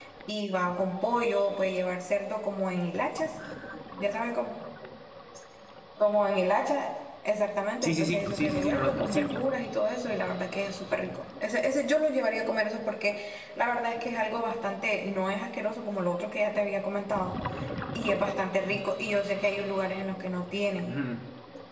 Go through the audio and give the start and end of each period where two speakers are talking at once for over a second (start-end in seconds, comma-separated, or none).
7.8-9.2